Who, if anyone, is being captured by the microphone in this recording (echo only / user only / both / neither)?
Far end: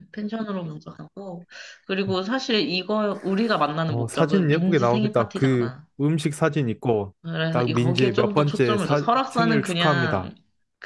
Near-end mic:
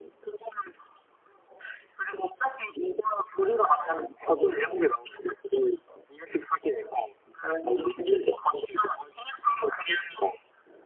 echo only